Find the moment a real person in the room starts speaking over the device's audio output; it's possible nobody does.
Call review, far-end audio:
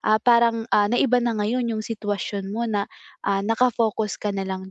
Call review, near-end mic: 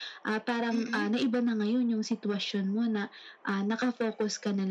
0.7 s

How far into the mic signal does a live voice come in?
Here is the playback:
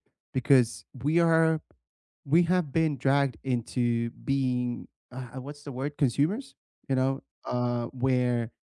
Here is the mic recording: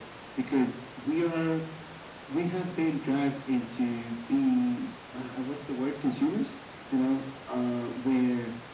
none

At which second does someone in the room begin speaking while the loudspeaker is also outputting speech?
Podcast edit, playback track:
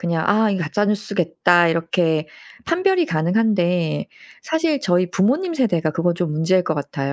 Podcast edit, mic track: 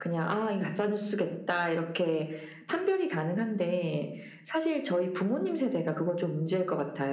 none

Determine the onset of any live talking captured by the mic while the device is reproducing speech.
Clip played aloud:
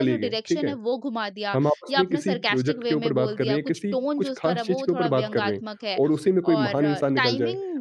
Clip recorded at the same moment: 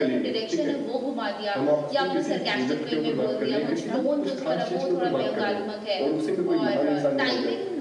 3.7 s

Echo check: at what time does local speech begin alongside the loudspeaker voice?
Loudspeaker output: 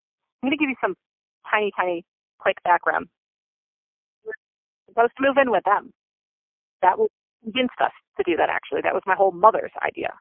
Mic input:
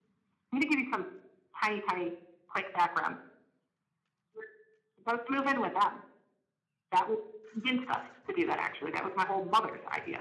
none

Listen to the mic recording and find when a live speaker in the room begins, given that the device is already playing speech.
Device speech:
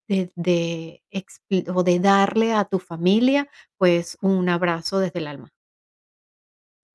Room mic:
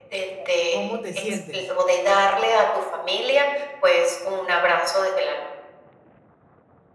0.7 s

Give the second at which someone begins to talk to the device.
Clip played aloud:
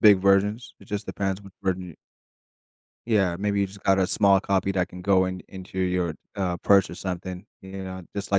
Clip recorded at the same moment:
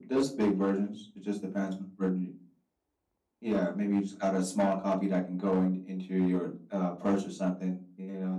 none

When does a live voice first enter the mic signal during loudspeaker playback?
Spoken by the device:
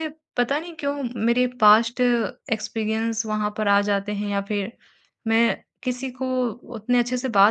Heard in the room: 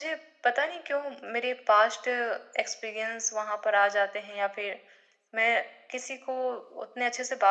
none

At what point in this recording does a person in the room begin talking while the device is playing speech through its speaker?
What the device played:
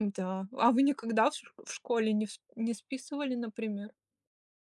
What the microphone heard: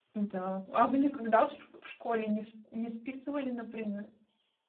none

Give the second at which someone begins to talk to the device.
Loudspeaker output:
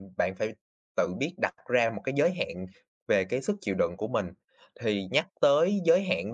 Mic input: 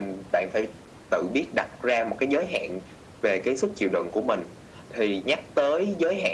none

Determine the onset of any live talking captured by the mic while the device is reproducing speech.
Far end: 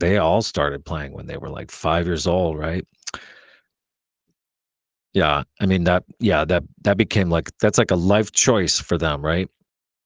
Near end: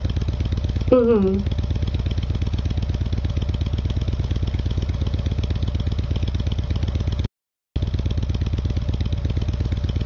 0.9 s

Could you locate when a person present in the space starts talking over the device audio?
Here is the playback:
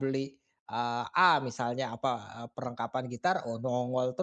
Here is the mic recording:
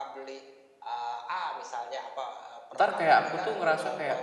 2.8 s

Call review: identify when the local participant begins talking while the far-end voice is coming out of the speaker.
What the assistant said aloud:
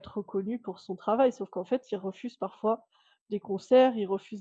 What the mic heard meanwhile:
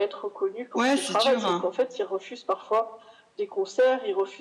0.8 s

